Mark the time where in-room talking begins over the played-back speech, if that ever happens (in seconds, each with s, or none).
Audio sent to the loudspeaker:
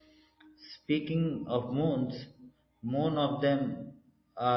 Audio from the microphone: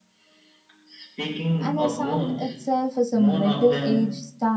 1.6 s